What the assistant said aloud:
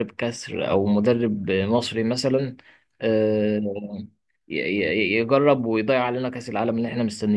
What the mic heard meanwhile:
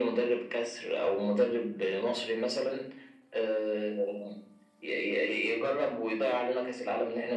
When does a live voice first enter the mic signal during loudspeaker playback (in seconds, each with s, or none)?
none